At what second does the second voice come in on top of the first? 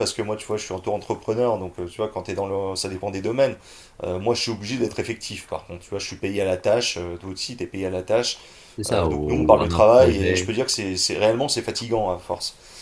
9 s

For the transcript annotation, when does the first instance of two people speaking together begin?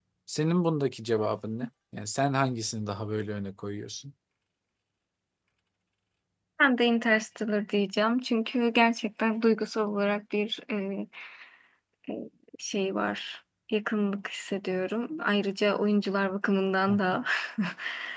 none

